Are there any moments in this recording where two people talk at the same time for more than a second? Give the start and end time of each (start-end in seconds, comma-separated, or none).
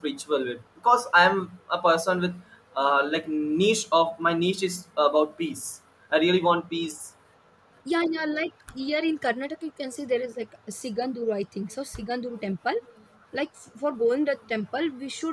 none